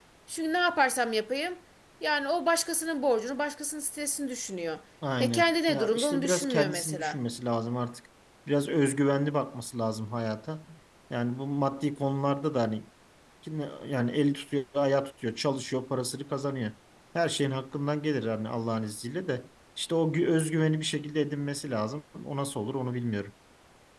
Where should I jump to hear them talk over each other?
5.2 s

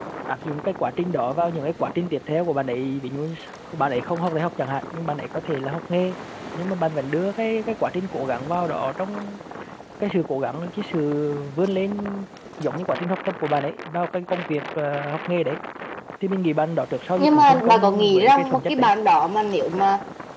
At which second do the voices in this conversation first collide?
17.2 s

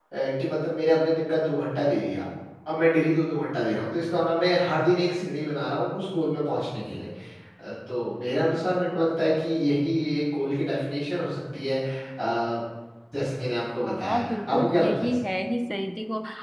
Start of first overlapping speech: 13.8 s

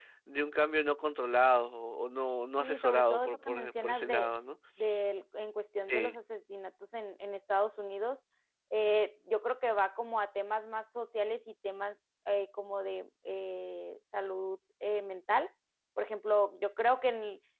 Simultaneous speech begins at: 2.6 s

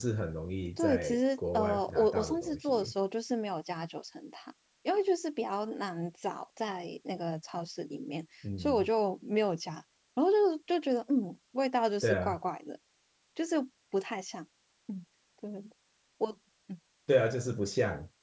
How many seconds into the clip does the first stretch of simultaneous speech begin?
0.8 s

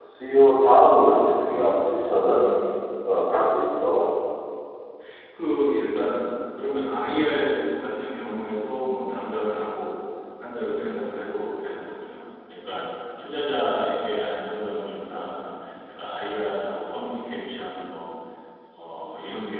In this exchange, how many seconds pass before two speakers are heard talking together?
none

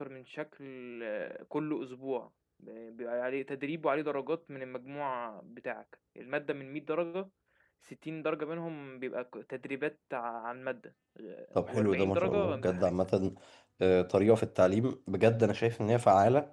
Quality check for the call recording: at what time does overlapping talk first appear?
11.6 s

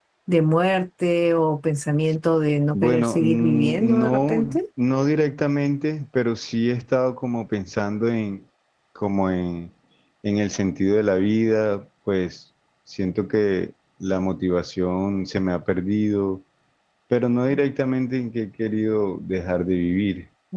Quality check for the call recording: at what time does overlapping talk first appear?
2.7 s

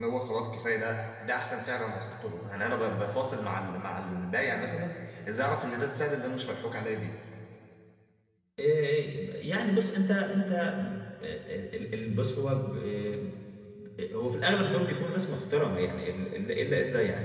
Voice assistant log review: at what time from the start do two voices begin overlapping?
none

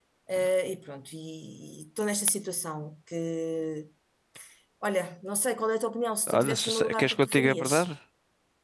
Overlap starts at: 6.3 s

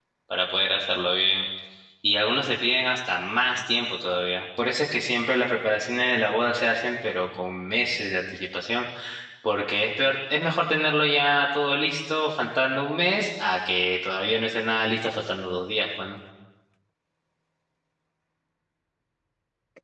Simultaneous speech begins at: none

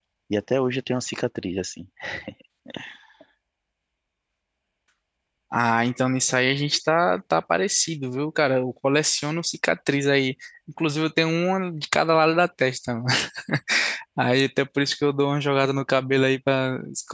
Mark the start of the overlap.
none

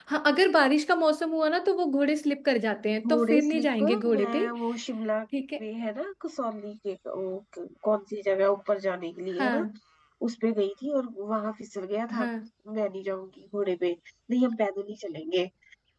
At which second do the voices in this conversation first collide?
3.1 s

